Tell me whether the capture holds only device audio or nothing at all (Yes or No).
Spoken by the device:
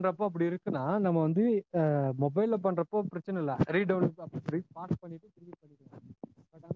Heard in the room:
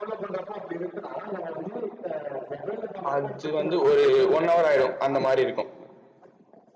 No